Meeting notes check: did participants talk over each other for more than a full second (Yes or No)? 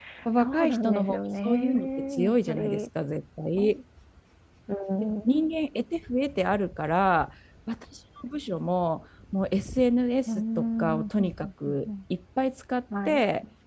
Yes